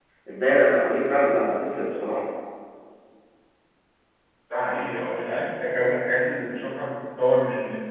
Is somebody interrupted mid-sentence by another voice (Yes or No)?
No